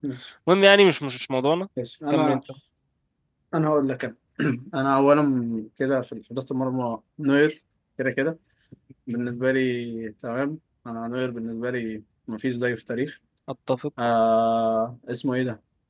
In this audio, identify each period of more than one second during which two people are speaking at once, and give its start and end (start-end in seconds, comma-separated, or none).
none